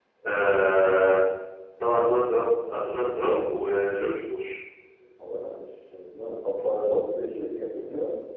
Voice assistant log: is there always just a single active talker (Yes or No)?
Yes